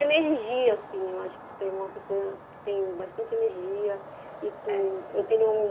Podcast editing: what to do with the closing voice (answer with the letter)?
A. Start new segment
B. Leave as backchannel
B